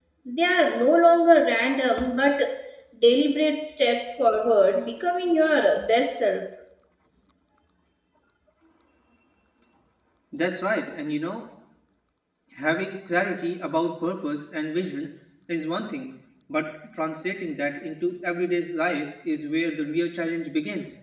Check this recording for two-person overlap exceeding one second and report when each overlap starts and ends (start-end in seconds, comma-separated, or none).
none